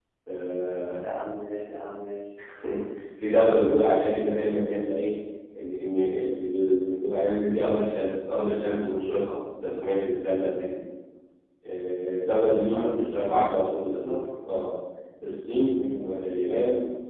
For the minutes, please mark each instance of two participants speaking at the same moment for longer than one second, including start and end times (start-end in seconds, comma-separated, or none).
12.7-14.2